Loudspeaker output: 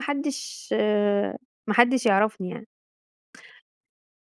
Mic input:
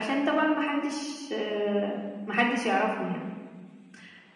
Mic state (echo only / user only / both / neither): echo only